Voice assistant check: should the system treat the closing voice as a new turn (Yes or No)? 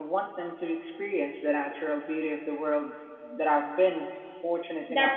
Yes